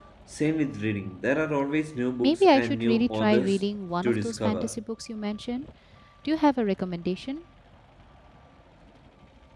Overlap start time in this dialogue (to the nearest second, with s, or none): 2 s